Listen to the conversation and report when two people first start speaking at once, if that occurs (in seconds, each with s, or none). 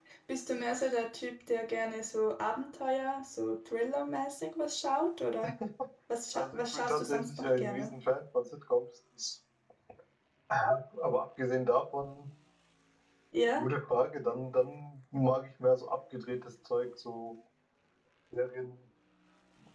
6.3 s